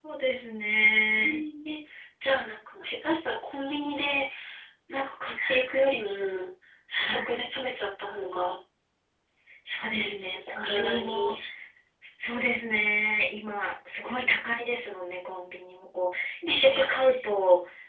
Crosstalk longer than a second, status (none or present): present